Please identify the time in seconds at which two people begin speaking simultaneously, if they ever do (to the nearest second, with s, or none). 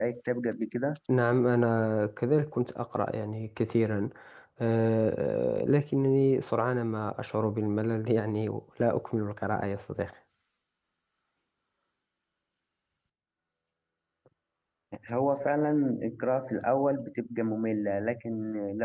none